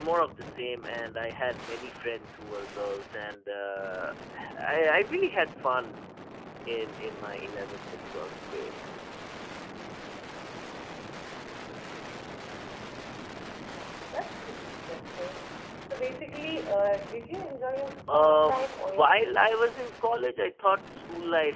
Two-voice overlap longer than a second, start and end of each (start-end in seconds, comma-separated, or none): 18.1-19.6